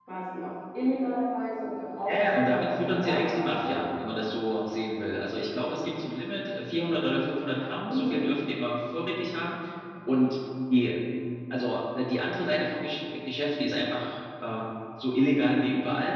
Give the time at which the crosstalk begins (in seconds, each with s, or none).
2.1 s